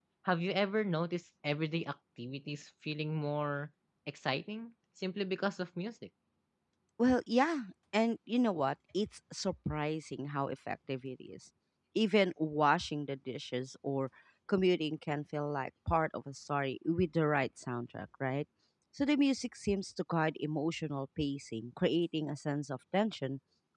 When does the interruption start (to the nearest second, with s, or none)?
none